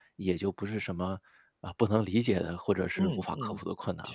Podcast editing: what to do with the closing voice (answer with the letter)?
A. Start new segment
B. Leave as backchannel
A